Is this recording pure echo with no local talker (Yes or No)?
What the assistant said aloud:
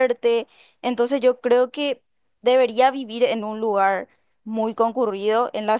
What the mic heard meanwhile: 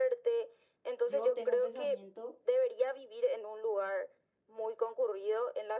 No